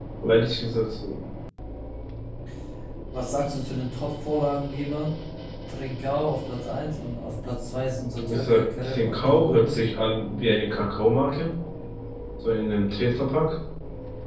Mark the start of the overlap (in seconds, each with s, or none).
8.3 s